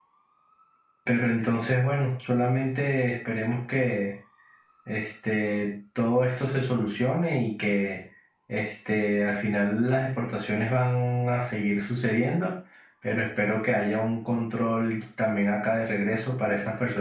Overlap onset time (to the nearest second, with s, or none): none